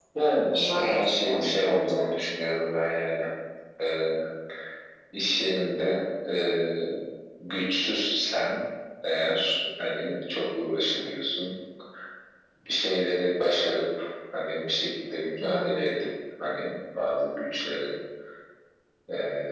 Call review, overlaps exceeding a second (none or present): present